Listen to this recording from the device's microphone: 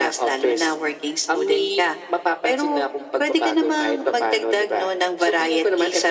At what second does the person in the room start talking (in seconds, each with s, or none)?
none